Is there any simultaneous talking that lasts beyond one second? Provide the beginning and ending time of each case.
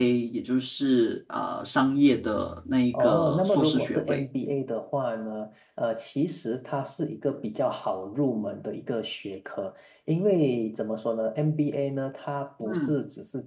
2.9-4.2

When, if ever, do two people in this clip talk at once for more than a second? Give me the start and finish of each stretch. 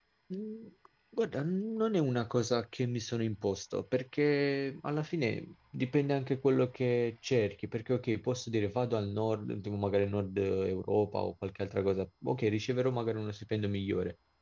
none

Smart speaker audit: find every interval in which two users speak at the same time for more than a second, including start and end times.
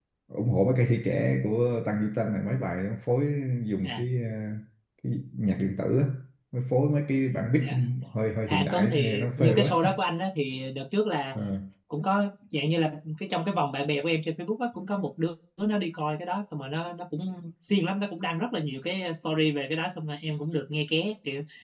8.5-9.7

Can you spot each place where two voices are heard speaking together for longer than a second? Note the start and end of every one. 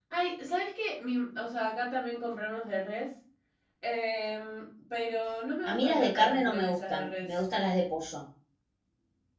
5.6-7.3

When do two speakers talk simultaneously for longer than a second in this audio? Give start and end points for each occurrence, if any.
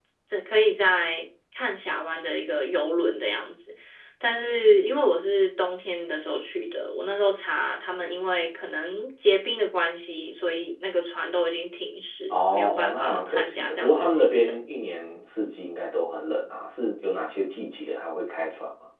12.3-14.6

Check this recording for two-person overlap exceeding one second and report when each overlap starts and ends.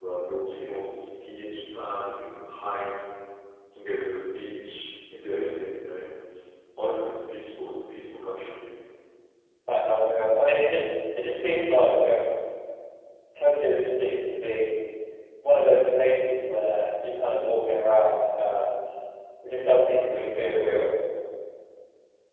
none

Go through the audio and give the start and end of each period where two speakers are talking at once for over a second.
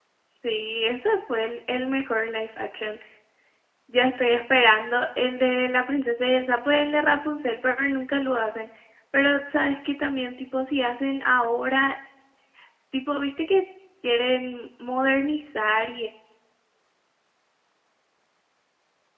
none

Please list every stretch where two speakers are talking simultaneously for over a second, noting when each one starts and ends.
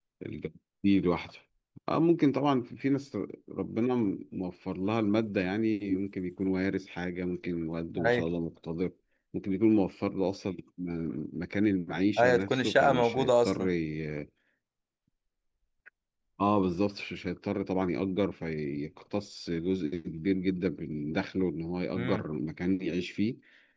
12.2-13.6

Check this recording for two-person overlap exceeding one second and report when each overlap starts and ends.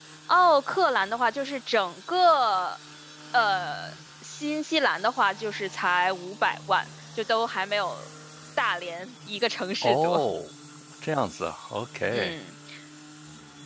none

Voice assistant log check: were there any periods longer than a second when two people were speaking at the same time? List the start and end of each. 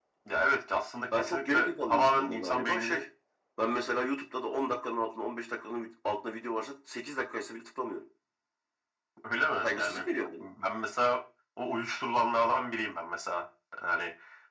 1.2-3.0

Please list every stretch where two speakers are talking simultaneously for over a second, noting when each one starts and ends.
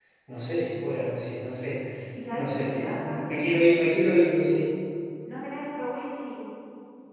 2.4-3.7

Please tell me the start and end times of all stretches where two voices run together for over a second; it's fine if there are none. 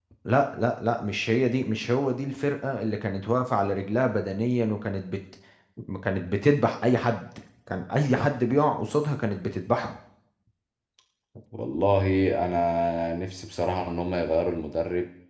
none

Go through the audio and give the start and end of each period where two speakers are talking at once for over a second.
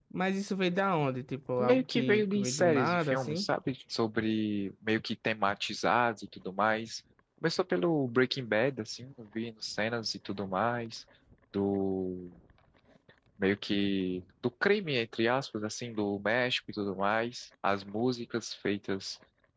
1.6-3.5

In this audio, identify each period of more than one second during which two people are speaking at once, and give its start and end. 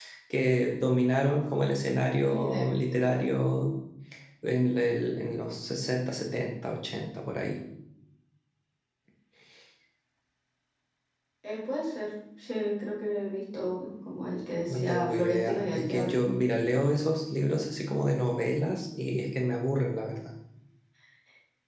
14.7-16.2

